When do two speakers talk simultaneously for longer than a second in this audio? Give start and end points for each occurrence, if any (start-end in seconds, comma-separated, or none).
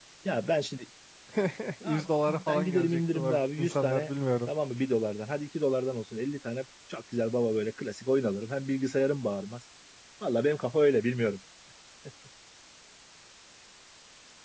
1.8-4.1